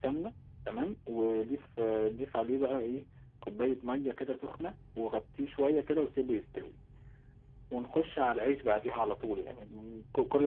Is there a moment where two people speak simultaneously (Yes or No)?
No